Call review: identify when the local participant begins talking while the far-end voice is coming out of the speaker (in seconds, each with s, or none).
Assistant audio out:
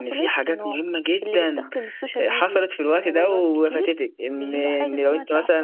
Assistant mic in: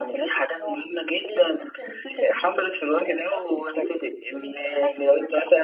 none